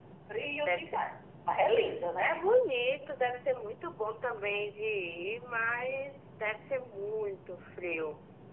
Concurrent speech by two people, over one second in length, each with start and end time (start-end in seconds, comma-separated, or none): none